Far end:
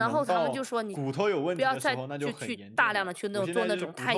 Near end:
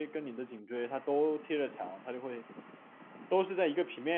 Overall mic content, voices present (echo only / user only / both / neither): user only